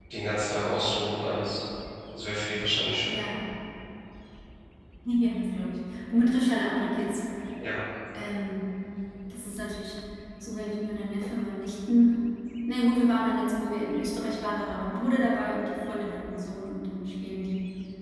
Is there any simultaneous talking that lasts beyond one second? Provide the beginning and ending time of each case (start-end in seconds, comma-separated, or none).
none